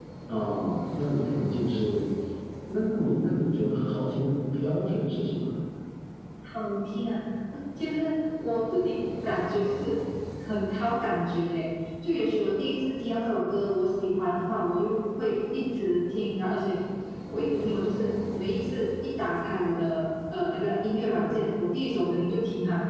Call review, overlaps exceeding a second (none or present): none